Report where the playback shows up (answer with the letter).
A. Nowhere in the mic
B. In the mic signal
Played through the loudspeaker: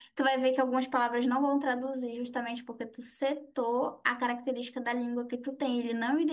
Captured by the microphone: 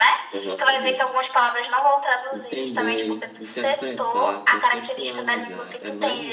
B